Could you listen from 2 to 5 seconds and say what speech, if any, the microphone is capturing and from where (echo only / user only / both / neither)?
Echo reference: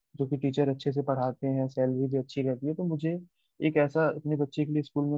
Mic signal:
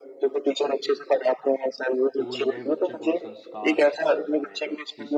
both